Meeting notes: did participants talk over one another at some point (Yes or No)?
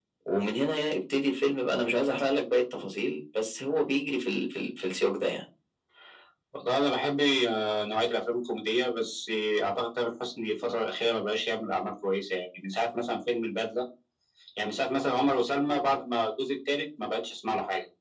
No